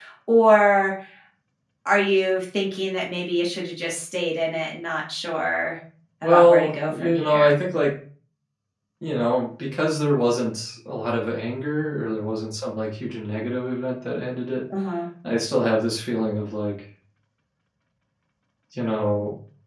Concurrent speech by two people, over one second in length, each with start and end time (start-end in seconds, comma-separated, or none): 6.2-7.6